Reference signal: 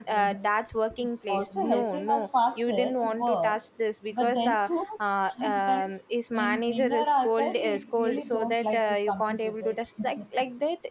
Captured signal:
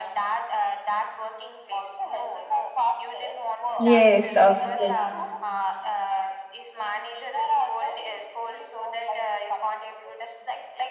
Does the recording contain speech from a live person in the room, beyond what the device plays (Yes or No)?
Yes